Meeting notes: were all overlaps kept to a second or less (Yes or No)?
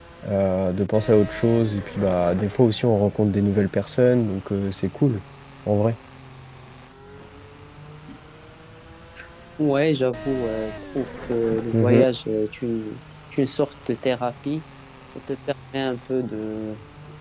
Yes